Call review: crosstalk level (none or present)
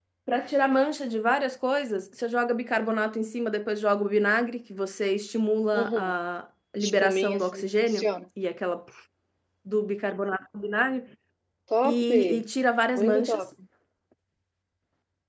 present